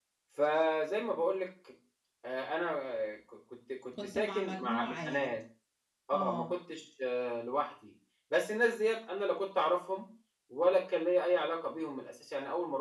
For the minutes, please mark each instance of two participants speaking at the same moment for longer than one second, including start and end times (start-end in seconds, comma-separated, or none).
4.0-5.3